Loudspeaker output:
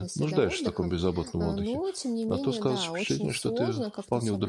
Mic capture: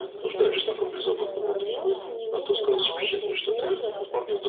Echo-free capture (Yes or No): No